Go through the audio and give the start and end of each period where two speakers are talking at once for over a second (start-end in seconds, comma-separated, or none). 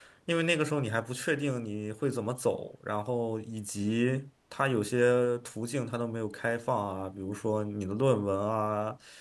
none